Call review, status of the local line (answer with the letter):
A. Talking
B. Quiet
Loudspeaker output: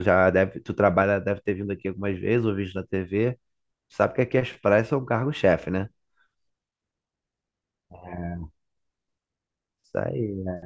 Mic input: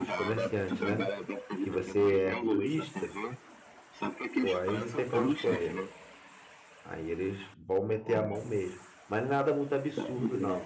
A